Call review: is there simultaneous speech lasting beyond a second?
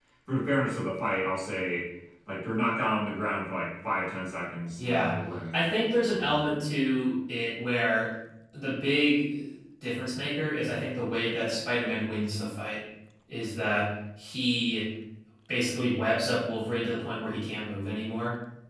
No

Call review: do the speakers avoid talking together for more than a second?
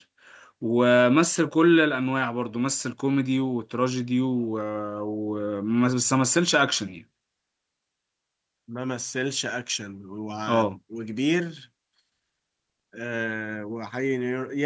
Yes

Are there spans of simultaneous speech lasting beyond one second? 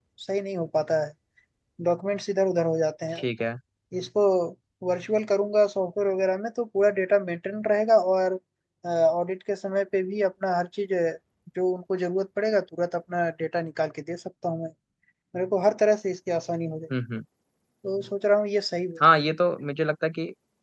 No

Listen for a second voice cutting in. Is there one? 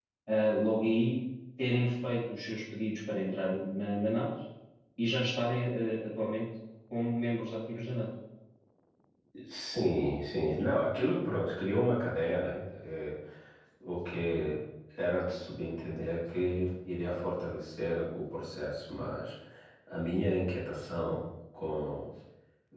No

